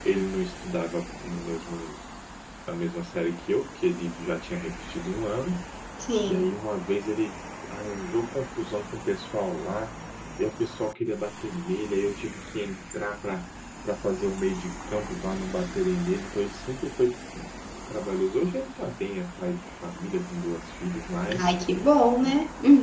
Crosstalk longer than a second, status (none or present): none